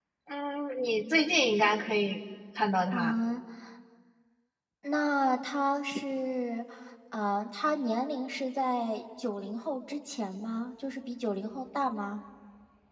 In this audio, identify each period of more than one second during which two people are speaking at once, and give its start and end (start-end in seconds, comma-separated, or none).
none